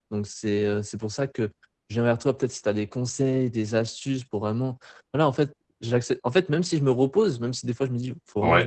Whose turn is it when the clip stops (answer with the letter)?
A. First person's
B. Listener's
A